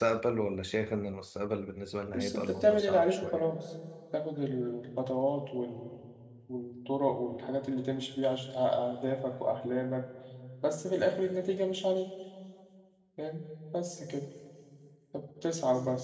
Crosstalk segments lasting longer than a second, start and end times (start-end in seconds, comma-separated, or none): 2.1-3.4